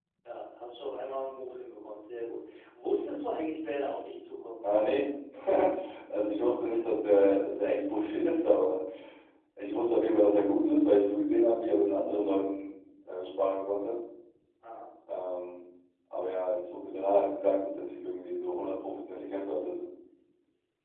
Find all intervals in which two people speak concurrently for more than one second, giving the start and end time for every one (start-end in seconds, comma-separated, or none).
none